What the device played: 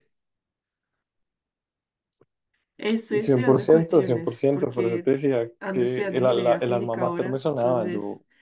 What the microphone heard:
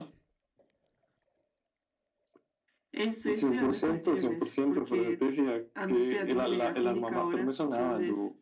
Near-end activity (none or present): none